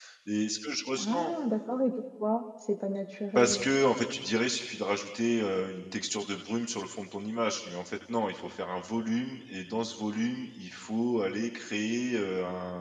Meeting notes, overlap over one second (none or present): none